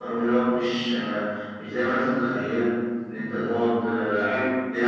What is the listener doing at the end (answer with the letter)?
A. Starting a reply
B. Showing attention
B